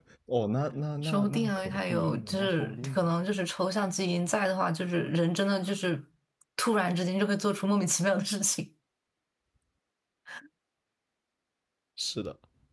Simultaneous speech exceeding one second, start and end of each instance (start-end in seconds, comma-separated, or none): 1.0-3.1